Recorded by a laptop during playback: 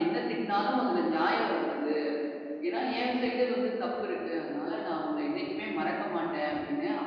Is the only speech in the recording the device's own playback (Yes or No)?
Yes